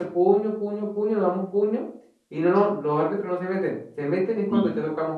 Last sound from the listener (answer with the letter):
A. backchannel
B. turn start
A